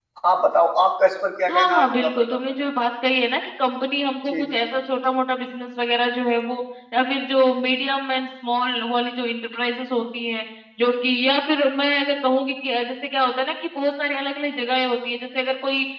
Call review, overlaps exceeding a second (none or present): present